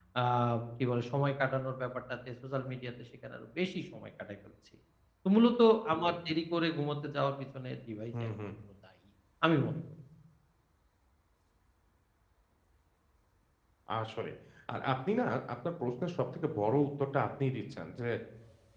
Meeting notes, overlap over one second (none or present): none